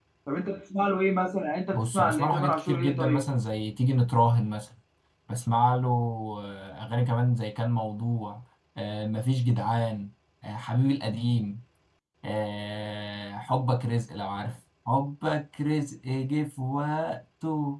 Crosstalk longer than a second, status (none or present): present